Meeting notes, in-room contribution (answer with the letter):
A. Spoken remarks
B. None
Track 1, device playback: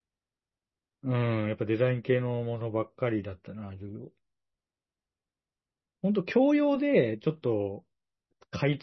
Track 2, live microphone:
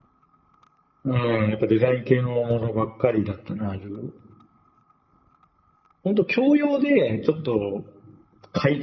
B